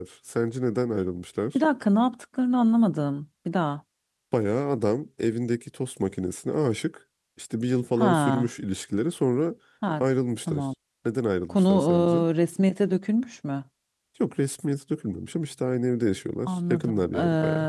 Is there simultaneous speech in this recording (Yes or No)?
Yes